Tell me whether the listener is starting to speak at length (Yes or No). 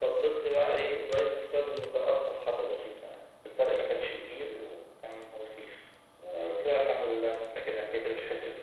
No